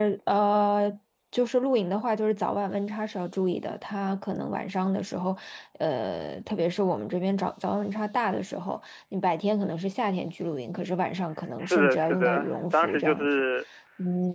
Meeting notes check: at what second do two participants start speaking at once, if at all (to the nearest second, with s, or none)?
12 s